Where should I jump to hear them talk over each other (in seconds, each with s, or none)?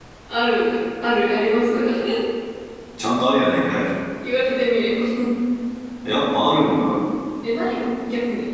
none